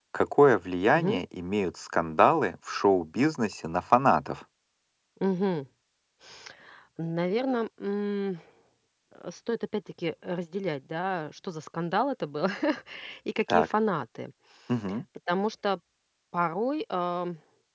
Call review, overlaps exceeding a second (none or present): none